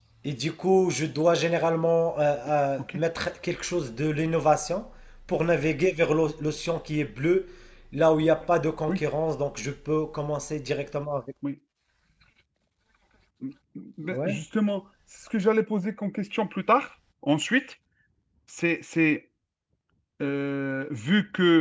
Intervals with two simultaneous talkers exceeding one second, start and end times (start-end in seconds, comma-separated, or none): none